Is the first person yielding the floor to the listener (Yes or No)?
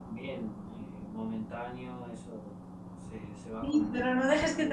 Yes